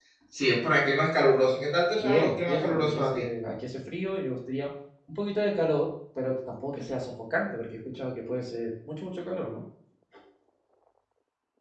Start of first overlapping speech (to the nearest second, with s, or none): 2 s